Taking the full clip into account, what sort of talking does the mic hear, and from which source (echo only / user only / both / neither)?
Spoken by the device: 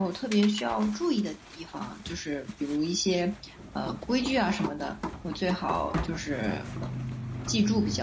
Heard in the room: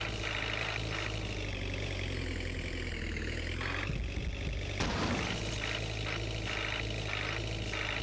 neither